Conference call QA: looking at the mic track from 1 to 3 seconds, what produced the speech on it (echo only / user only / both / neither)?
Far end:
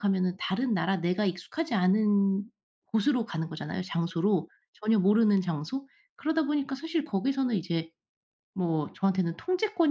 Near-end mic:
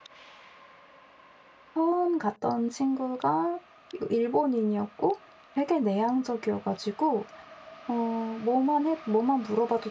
user only